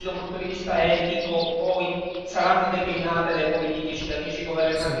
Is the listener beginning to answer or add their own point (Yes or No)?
No